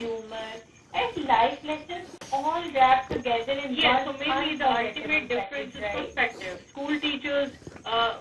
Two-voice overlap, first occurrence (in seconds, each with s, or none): 3.7 s